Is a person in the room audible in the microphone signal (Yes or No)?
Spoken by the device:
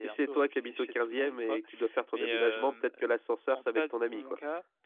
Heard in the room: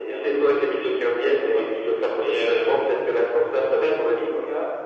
No